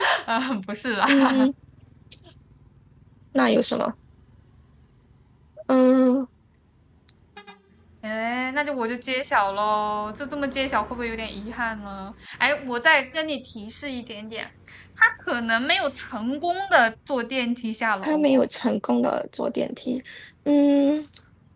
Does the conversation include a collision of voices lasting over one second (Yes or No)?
No